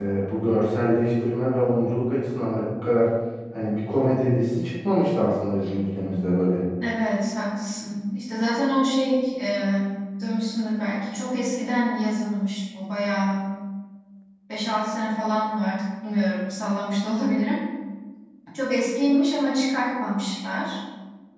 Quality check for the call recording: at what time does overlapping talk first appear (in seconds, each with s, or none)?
none